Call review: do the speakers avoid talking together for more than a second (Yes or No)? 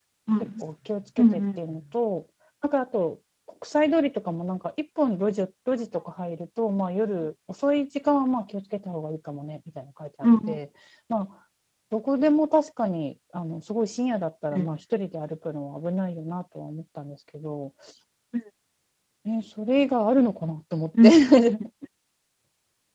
Yes